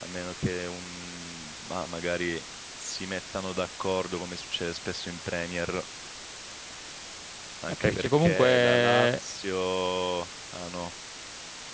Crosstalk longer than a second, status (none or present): present